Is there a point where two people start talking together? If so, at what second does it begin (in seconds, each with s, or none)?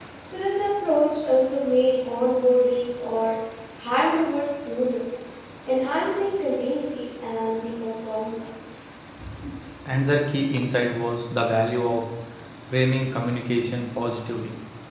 none